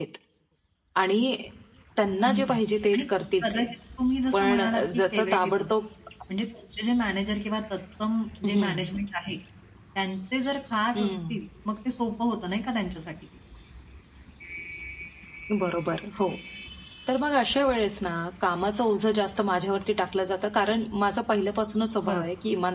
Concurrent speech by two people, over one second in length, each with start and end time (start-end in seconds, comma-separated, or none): 4.3-5.6